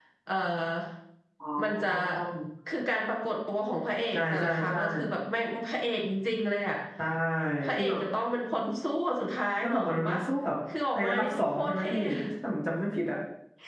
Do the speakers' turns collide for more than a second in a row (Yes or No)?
Yes